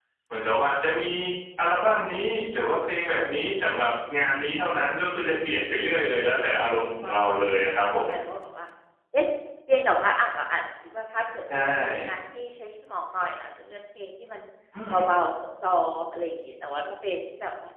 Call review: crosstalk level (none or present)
present